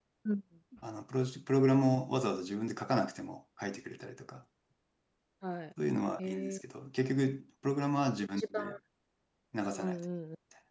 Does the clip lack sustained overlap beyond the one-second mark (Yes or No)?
Yes